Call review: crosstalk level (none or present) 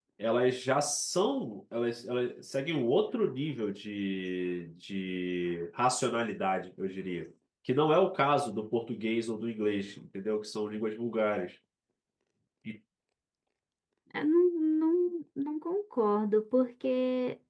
none